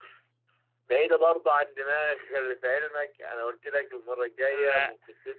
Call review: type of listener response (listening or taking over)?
listening